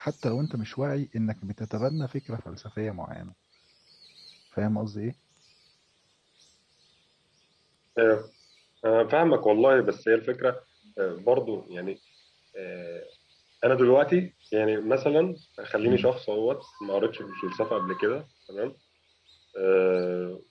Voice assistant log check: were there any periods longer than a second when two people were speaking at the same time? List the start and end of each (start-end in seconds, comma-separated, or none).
none